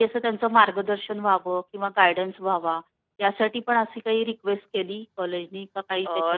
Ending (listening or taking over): taking over